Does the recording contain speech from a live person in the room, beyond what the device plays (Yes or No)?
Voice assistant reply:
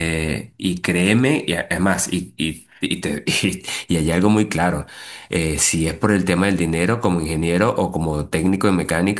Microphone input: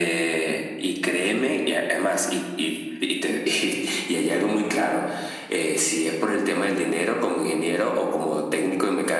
No